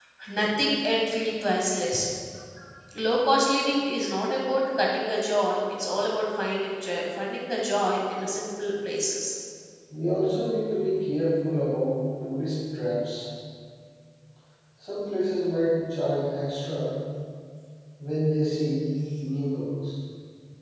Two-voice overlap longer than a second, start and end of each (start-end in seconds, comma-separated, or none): none